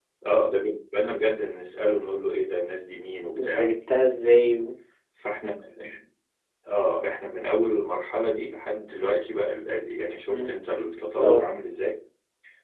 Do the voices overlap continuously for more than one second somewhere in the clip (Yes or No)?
No